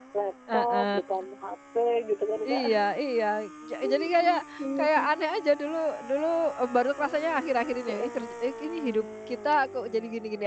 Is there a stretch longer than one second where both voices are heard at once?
No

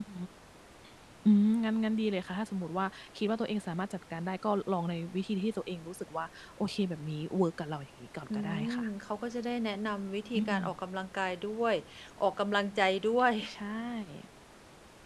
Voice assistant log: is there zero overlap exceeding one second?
Yes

